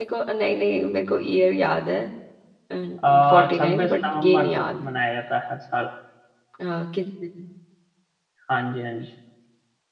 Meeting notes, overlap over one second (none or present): present